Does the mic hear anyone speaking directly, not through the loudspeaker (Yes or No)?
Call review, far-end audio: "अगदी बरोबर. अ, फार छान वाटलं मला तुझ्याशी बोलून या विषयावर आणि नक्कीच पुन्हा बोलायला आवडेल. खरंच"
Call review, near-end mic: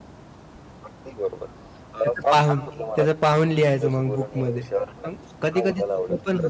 Yes